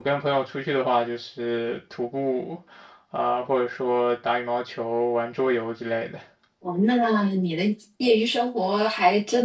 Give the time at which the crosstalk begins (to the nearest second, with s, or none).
none